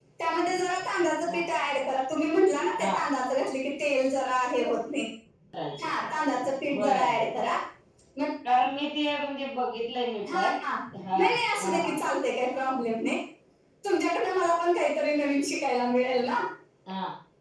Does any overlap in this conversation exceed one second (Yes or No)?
No